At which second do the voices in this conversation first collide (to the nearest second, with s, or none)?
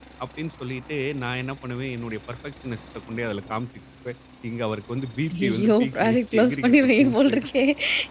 5 s